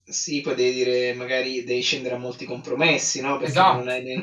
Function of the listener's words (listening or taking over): listening